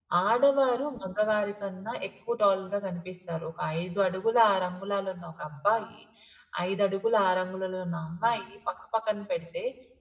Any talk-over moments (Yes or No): No